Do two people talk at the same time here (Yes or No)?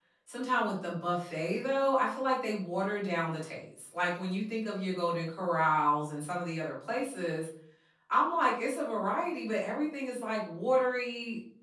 No